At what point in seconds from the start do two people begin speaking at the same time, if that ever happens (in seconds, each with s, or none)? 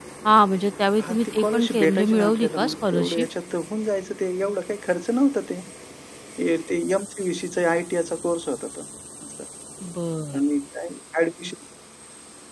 1.0 s